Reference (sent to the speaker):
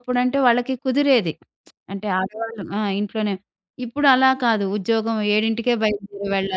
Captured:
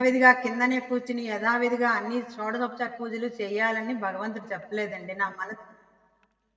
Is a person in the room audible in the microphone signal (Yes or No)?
Yes